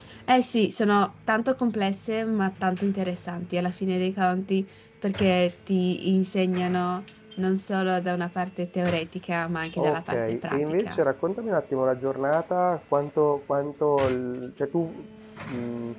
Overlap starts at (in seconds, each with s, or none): 9.8 s